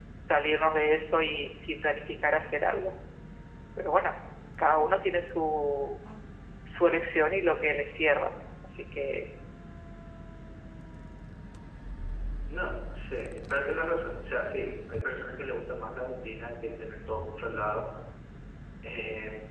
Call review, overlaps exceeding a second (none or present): none